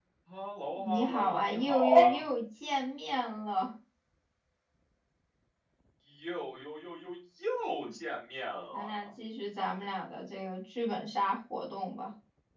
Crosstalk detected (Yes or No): Yes